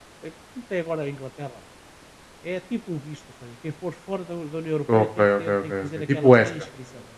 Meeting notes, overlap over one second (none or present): present